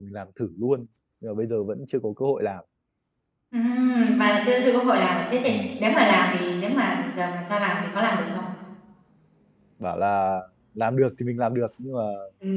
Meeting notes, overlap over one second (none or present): none